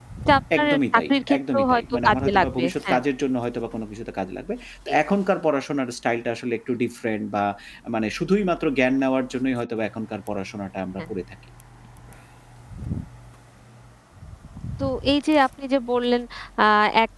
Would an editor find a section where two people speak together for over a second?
Yes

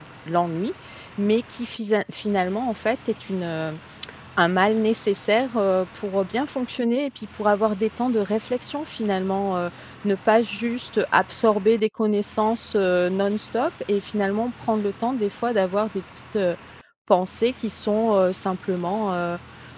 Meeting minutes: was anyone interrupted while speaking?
No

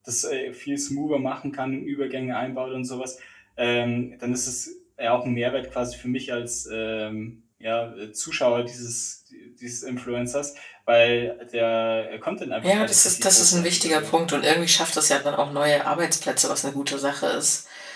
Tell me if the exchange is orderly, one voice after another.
No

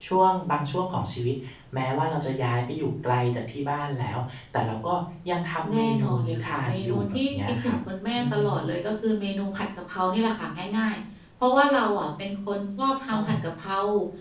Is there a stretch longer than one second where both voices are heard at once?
Yes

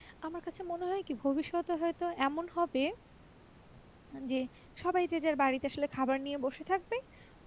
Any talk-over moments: No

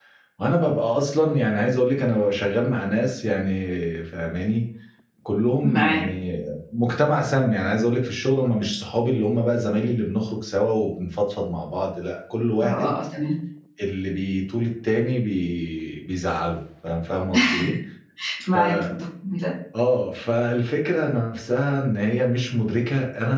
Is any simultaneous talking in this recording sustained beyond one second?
No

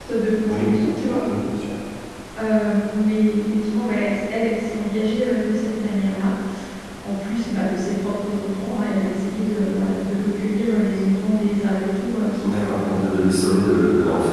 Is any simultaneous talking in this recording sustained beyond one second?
No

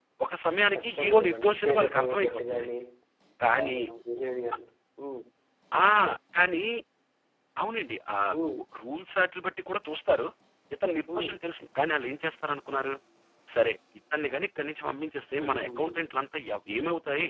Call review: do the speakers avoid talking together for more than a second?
No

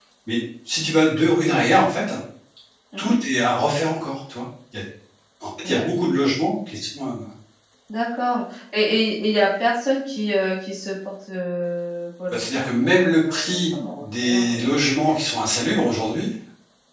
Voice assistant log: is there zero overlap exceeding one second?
No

